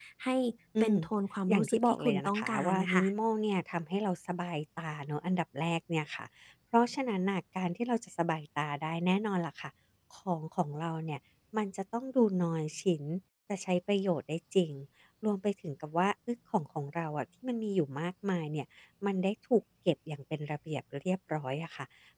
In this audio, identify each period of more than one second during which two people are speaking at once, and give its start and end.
1.5-3.0

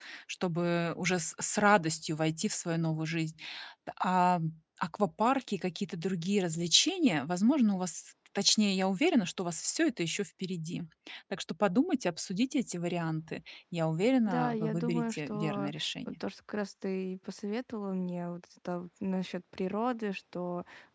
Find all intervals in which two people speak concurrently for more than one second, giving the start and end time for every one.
14.3-16.1

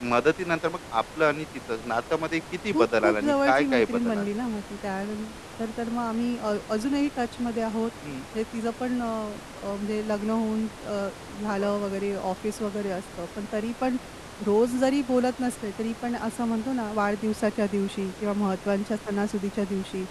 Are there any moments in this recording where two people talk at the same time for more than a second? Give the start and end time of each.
2.7-4.4

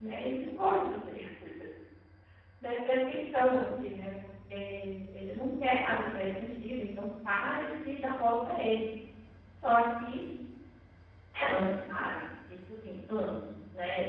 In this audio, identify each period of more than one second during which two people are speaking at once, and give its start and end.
none

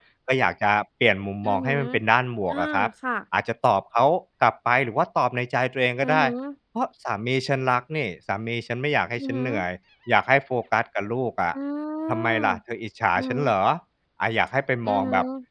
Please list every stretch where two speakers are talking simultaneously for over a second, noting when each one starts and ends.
none

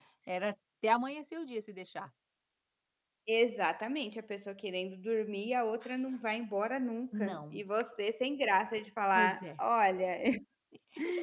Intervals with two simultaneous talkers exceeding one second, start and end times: none

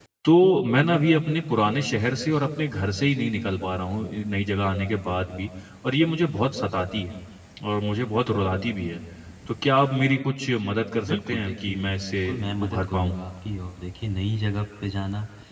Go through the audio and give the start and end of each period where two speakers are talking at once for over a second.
11.1-13.2

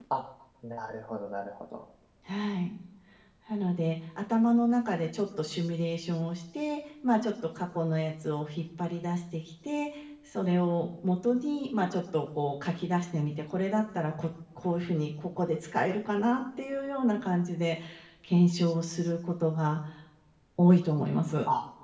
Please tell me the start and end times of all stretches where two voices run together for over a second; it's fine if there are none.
none

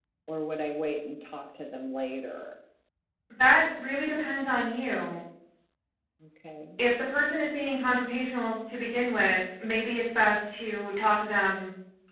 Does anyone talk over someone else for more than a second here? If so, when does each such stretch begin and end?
none

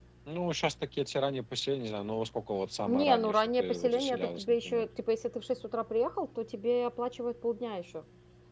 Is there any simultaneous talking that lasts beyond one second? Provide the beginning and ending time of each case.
2.9-4.8

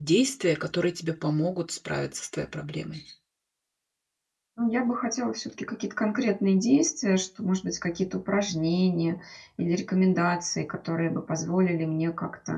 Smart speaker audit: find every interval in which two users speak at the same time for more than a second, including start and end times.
none

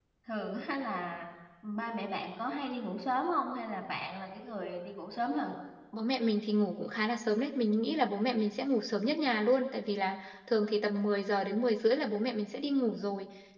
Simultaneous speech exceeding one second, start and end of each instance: none

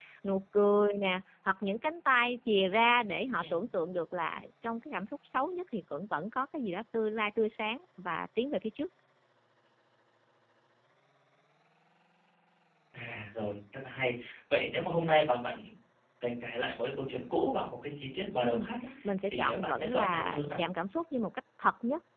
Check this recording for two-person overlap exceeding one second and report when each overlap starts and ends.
19.3-20.6

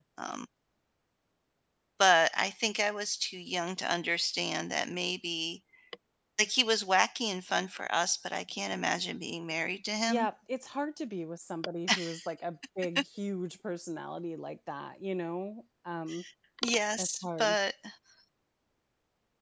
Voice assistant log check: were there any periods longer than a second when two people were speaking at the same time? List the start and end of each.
none

